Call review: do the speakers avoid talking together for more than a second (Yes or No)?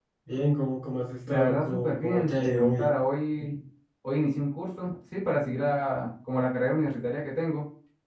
No